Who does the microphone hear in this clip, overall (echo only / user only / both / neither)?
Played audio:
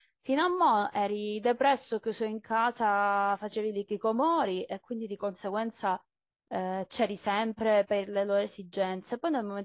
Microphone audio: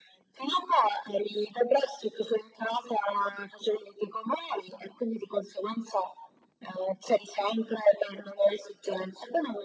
echo only